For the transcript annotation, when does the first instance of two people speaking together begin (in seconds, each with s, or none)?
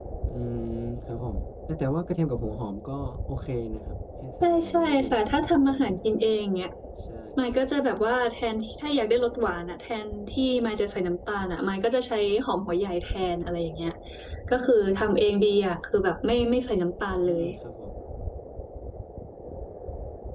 4.4 s